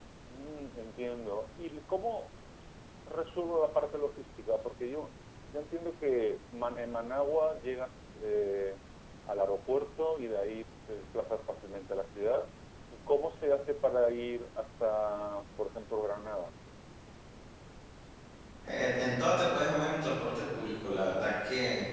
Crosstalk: none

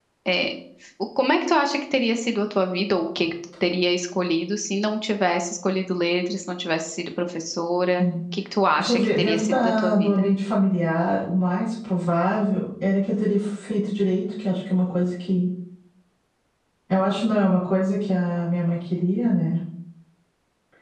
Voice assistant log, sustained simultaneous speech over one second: present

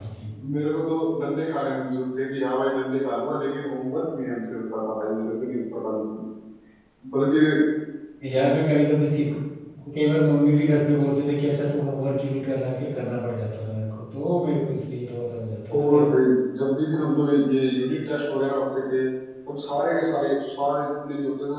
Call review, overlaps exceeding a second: none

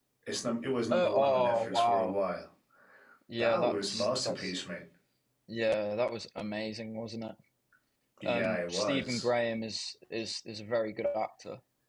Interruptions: present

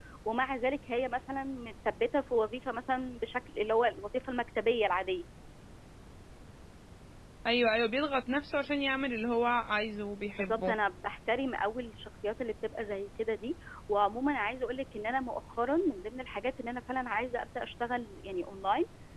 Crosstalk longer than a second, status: none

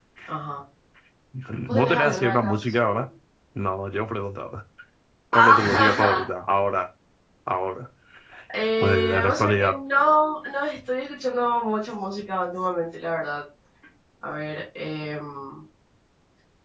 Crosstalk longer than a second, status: present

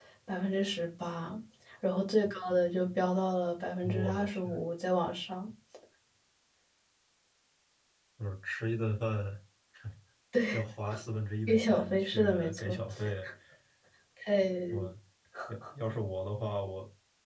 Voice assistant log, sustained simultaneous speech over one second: present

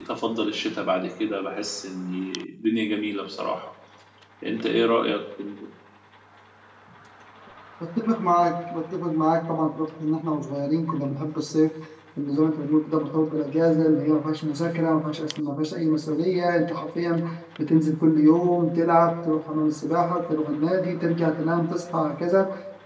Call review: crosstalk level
none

